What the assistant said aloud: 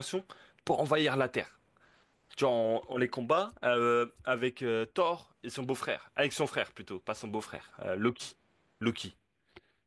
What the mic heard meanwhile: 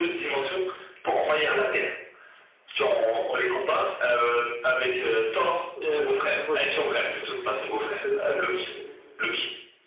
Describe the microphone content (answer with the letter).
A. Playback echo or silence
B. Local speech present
B